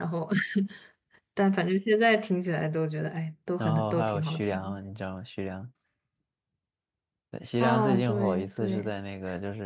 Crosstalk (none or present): present